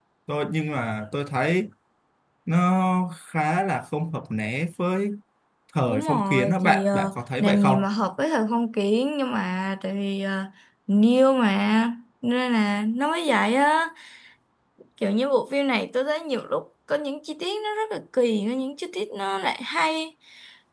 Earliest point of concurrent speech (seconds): 5.9 s

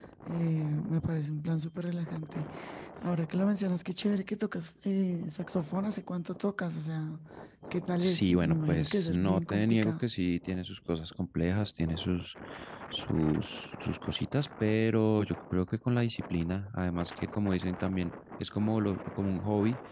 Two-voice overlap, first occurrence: 8.0 s

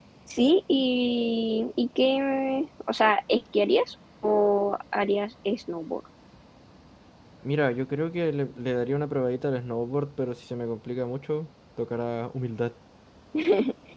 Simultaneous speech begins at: none

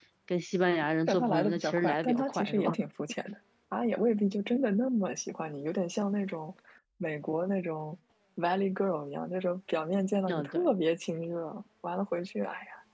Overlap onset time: 1.1 s

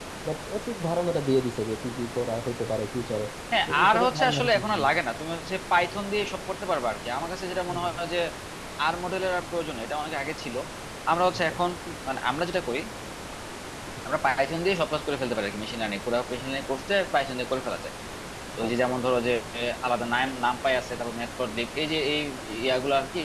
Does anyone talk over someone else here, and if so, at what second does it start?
3.7 s

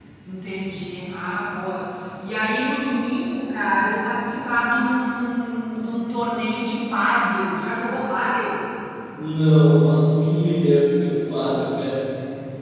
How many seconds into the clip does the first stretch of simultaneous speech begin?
none

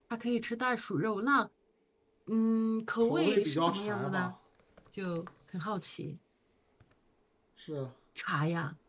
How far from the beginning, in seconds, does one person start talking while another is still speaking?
3.0 s

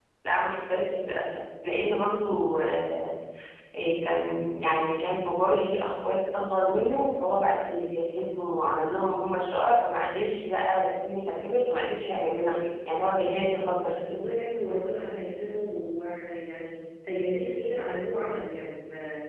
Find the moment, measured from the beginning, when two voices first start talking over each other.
none

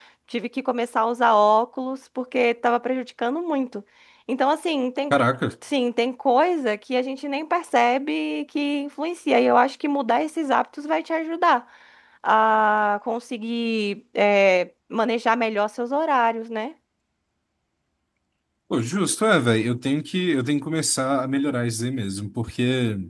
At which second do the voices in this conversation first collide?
none

